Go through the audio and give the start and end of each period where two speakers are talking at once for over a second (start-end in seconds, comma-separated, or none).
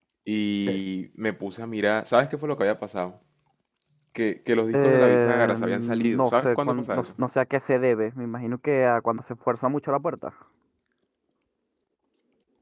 4.7-7.1